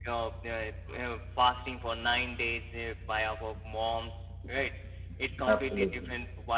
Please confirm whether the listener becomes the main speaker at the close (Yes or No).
No